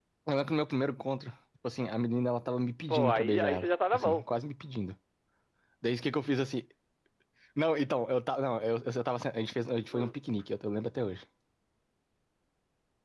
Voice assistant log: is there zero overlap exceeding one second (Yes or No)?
No